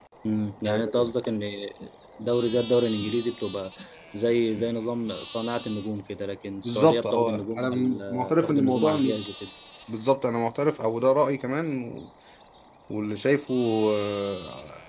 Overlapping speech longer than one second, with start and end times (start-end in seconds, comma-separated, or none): 6.6-9.2